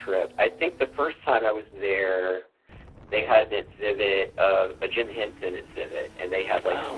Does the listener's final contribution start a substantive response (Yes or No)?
No